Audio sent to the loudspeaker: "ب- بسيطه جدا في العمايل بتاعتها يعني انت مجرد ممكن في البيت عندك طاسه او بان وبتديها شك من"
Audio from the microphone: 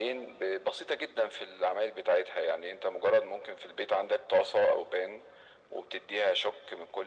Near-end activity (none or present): none